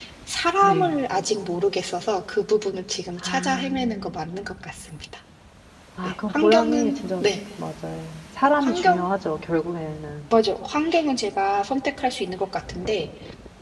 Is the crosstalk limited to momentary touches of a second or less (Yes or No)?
No